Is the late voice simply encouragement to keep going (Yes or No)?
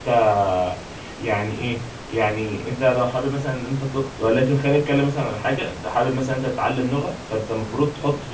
Yes